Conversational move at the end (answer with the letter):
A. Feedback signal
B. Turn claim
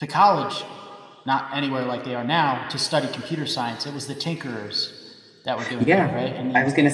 B